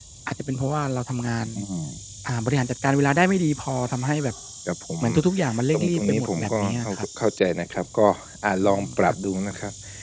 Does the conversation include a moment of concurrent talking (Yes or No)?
Yes